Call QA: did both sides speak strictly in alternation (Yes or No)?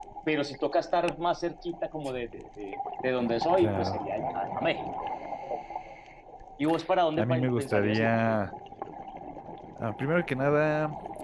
No